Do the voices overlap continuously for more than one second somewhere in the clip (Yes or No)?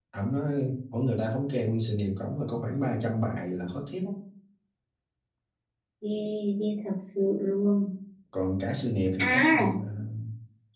No